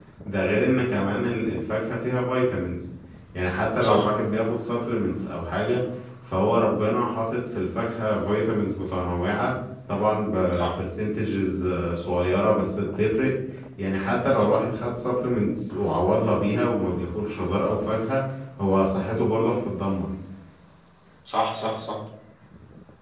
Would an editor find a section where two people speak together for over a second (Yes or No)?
No